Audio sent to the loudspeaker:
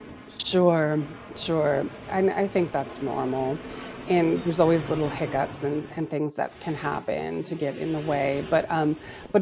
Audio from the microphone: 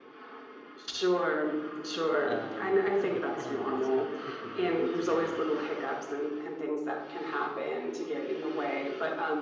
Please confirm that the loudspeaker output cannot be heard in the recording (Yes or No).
No